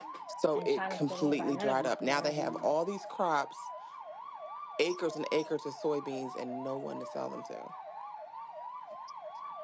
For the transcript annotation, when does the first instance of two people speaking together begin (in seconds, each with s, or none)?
0.6 s